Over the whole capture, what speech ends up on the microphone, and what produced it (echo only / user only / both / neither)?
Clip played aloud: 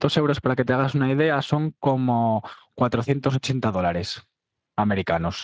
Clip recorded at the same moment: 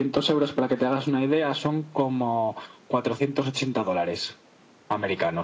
echo only